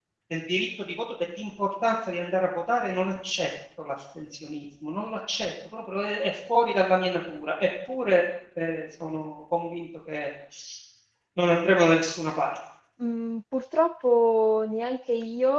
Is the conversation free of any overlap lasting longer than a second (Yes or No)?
Yes